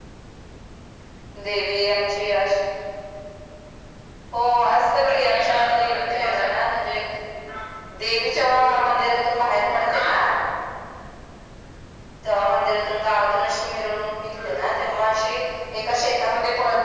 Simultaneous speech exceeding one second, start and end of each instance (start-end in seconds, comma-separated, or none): 5.0-6.7